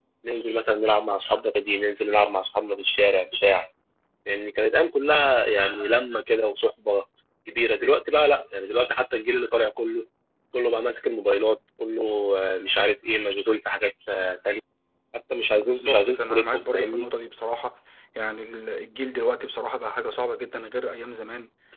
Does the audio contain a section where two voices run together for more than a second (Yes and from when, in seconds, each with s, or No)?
Yes, from 15.5 s